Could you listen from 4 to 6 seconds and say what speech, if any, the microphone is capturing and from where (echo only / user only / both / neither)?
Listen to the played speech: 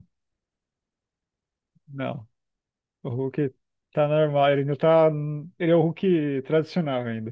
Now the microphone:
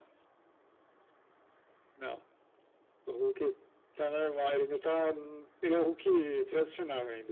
echo only